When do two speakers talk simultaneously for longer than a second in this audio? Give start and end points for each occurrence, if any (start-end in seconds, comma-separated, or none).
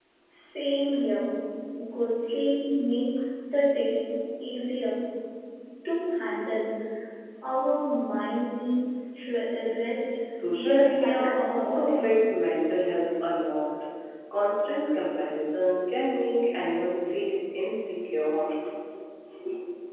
10.6-12.1